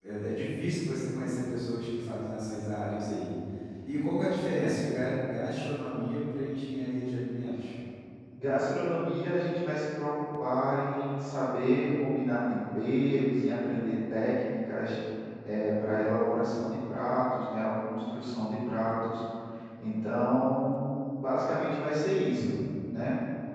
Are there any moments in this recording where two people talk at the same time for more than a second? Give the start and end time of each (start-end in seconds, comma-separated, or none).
none